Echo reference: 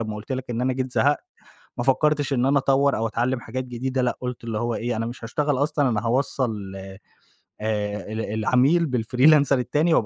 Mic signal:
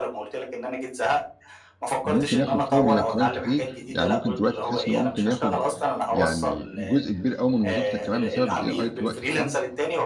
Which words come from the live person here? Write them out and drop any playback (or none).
ده ممكن ياخد شغل كمان كتير، يعني ممكن دلوقتي تحس إن هو ممكن ياخد يعني جزء كبير أوي من وظيفتك كمان بسبب الAI في الوقت الحالي؟